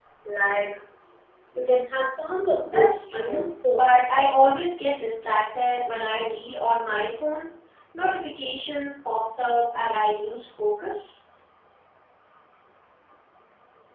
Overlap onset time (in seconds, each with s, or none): 2.6 s